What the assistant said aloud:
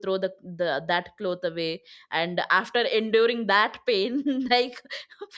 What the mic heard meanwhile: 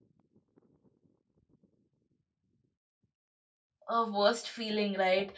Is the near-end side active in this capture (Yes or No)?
Yes